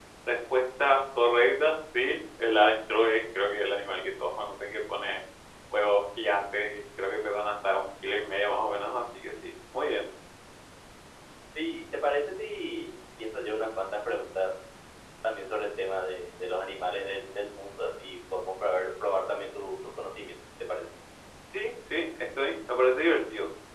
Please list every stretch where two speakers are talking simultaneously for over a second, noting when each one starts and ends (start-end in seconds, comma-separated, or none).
none